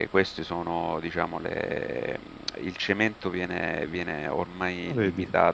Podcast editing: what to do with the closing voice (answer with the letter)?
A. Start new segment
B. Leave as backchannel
B